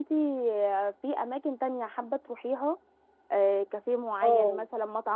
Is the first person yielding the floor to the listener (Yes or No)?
No